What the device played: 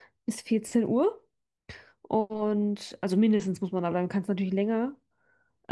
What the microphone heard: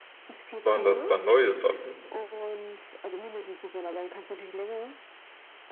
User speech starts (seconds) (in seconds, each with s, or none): 0.6 s